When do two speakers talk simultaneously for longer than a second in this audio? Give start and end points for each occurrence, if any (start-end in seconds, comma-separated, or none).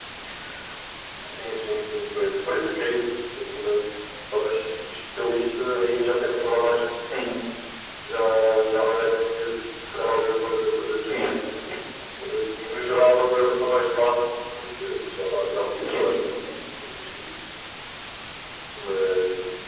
none